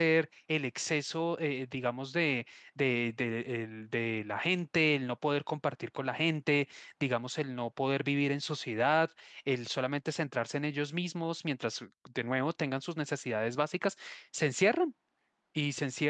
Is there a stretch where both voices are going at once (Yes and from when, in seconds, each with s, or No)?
No